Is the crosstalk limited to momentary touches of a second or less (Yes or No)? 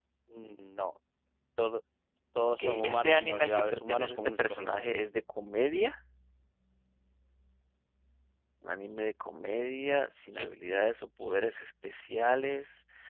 No